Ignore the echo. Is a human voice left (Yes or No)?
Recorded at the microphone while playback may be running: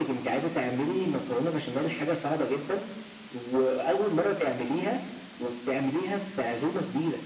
No